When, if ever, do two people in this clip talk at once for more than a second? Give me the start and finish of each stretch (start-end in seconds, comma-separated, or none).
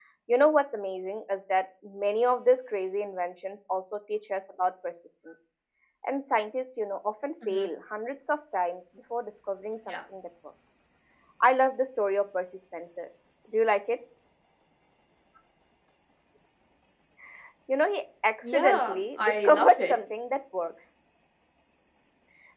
18.4-19.9